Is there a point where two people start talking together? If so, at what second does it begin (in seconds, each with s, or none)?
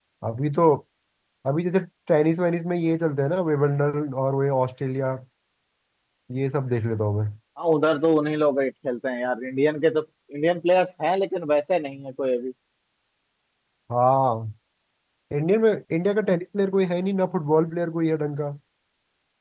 none